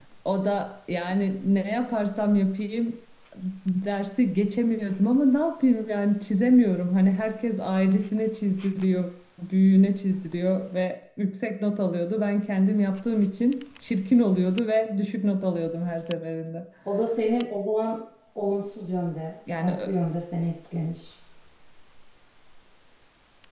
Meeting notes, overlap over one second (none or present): none